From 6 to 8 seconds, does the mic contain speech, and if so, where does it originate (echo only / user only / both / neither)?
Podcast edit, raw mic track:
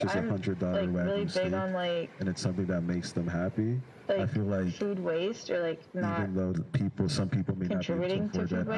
echo only